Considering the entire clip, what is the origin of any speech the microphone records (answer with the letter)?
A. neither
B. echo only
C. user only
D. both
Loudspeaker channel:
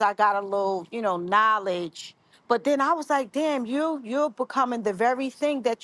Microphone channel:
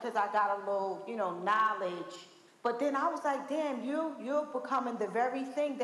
B